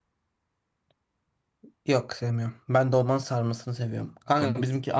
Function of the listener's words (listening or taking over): listening